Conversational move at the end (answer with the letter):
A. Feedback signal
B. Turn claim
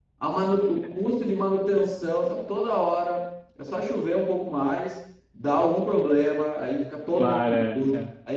A